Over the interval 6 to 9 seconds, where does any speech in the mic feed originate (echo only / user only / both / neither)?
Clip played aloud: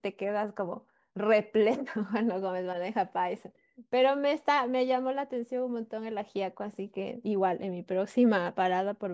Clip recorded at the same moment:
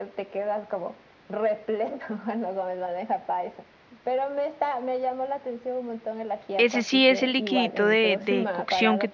both